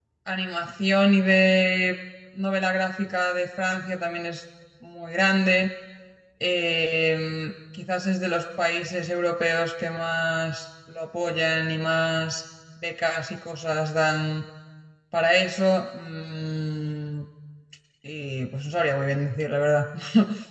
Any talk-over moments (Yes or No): No